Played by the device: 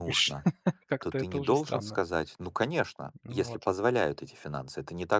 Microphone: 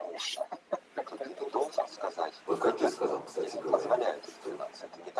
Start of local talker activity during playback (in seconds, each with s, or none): 2.4 s